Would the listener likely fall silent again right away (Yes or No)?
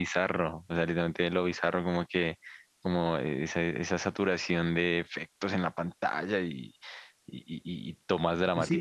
No